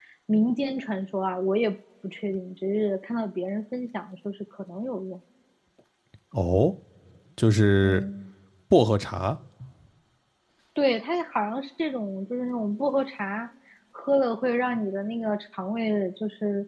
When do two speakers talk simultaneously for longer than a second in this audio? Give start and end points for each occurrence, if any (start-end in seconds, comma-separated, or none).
none